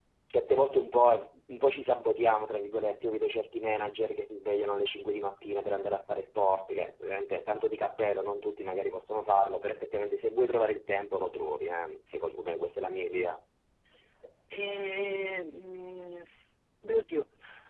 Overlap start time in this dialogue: none

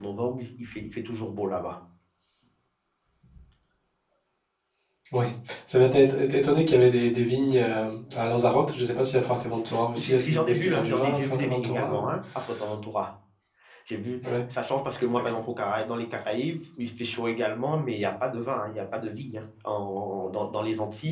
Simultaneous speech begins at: 10.0 s

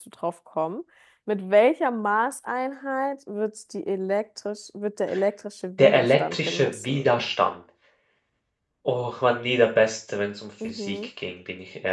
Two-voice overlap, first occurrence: 5.8 s

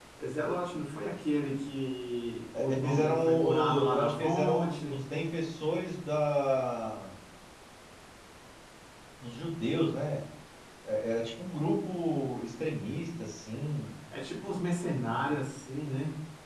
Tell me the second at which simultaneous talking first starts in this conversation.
2.5 s

